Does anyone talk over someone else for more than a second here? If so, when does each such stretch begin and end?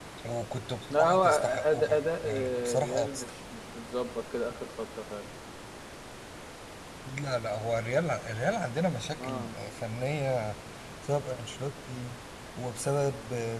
0.9-3.3

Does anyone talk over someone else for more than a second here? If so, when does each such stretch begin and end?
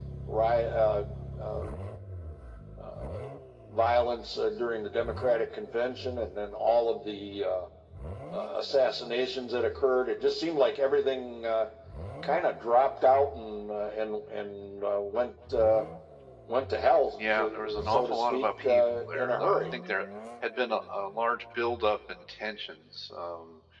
17.4-19.7

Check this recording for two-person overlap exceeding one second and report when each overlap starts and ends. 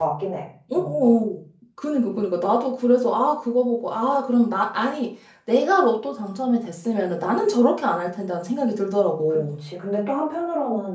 none

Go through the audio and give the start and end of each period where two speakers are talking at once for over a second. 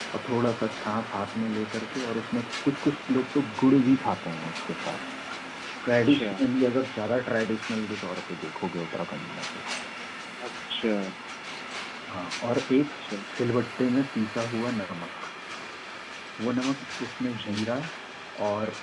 none

